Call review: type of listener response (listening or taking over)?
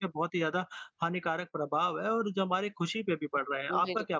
taking over